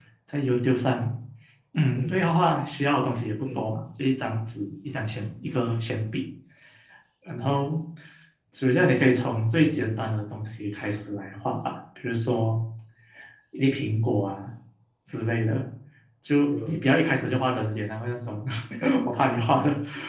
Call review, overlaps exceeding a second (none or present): none